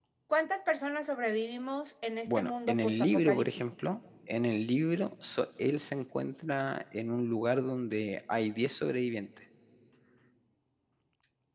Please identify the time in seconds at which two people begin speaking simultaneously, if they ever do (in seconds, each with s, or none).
2.3 s